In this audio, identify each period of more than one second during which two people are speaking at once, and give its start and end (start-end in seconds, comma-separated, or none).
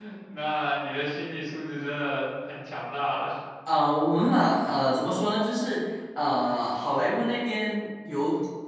none